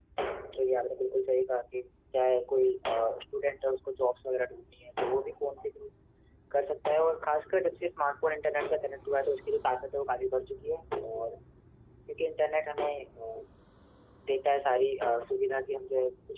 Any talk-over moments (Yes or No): No